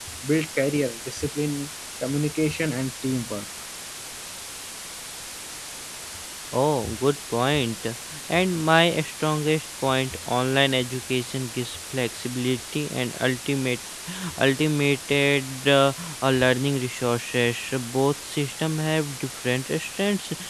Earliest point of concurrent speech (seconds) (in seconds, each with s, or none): none